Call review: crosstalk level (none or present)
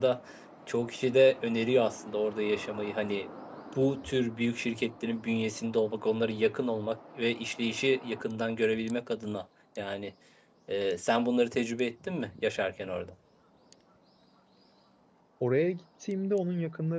none